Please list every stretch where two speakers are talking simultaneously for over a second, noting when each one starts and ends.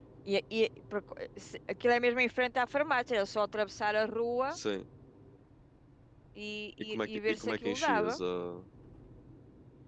6.9-8.2

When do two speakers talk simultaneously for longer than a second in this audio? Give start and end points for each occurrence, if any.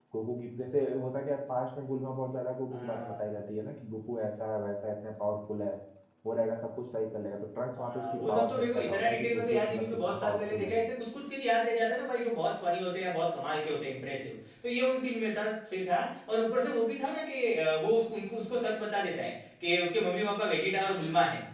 7.8-10.7

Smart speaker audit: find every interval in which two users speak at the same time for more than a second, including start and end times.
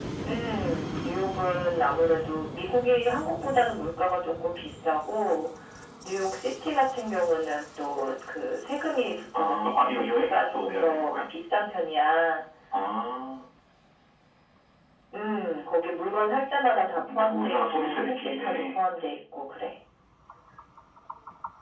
9.3-11.1, 17.1-18.8

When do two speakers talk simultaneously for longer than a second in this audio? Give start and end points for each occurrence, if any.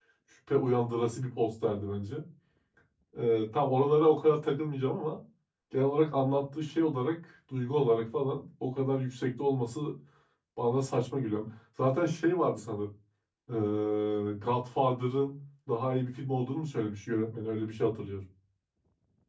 none

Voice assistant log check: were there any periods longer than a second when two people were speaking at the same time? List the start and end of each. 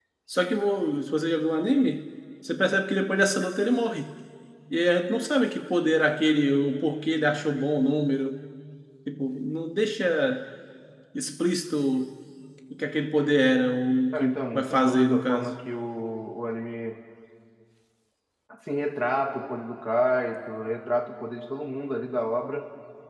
14.1-15.5

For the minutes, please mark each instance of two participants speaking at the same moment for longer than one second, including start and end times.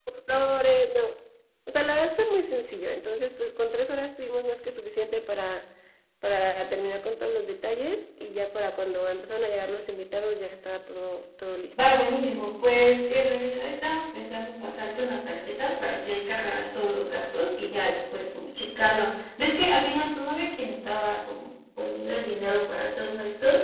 none

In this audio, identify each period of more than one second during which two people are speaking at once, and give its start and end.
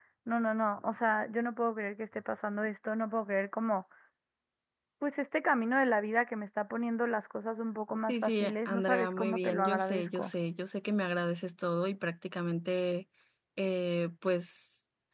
8.1-10.3

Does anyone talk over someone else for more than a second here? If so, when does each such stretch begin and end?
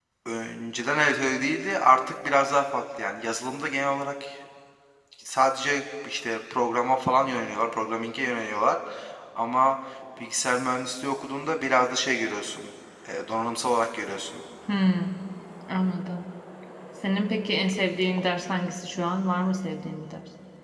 none

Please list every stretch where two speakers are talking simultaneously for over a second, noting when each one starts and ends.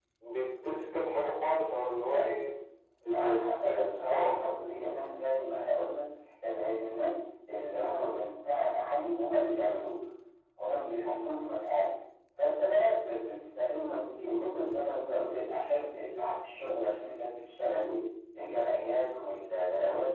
3.1-4.4

